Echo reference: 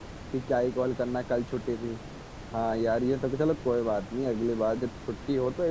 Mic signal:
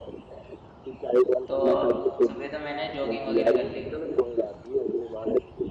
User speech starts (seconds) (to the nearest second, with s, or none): 1 s